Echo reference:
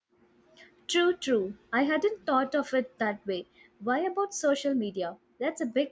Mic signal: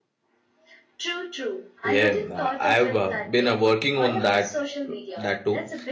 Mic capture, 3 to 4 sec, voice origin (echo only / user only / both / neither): both